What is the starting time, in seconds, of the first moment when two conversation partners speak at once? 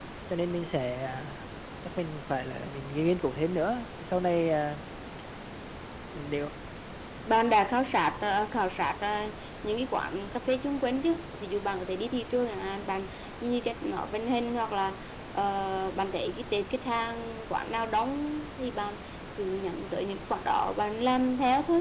none

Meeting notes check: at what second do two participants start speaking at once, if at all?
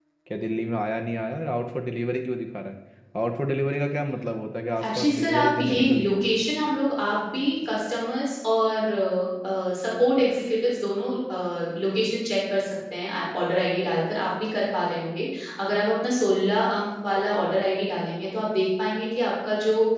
4.8 s

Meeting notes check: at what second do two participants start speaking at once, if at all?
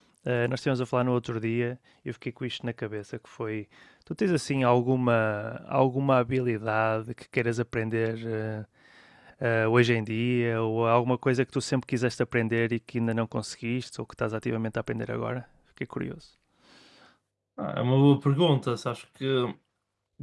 none

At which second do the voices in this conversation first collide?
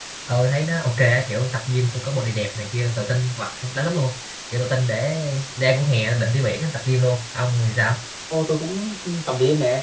none

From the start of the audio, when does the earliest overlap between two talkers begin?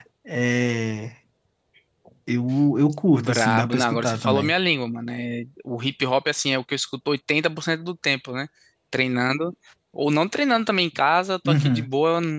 3.1 s

